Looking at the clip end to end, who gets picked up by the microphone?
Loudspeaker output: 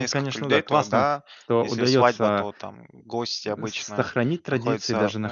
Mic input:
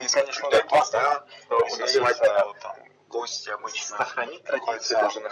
echo only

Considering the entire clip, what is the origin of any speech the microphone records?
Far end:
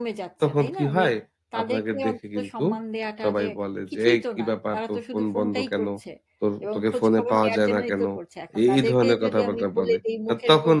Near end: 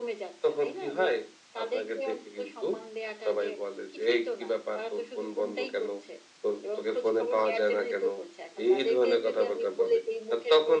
echo only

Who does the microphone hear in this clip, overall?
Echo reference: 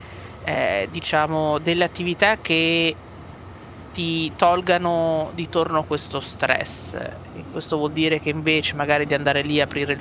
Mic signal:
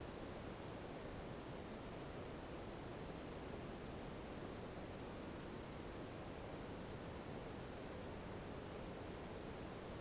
neither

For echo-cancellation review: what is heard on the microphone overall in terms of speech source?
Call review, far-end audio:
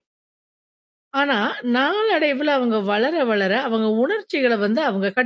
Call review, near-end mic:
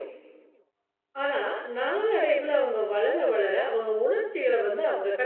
echo only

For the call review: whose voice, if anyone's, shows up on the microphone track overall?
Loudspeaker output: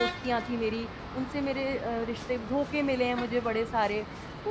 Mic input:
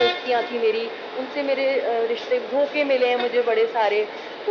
echo only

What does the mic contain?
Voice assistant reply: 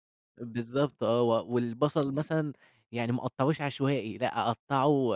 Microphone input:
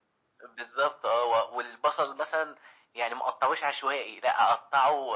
echo only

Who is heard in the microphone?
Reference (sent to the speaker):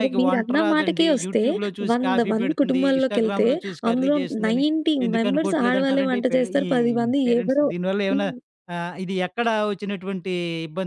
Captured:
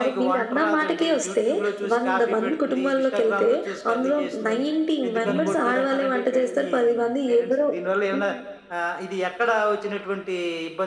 both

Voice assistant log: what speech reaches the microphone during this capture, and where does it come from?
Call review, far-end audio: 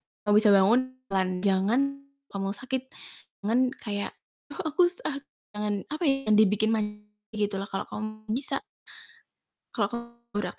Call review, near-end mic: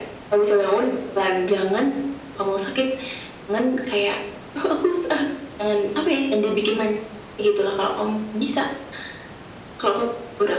echo only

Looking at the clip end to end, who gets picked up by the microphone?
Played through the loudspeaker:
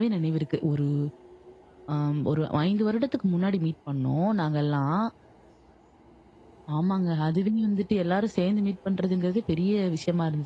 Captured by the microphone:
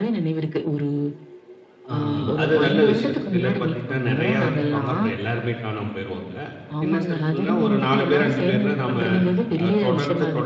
both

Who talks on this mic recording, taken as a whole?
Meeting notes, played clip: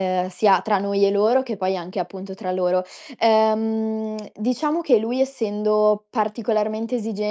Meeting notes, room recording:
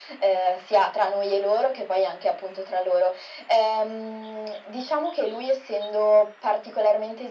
echo only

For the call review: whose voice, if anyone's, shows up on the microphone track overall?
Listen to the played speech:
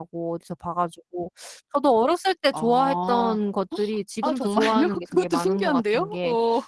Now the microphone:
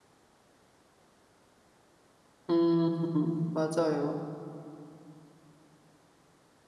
user only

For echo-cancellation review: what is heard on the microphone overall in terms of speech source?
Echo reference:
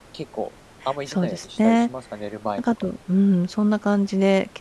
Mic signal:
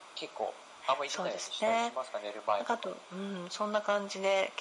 echo only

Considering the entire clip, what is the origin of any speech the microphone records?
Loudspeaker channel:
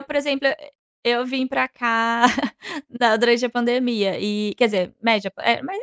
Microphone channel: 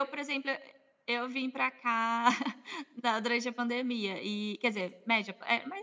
echo only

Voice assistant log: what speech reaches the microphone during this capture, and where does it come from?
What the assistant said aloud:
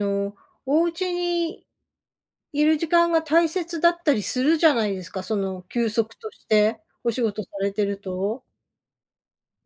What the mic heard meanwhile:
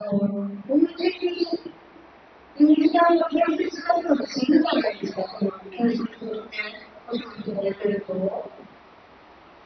echo only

